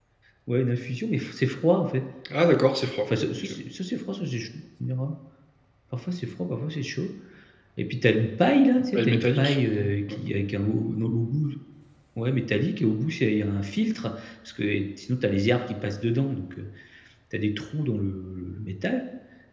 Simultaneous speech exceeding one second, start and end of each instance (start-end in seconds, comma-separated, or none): 8.9-10.2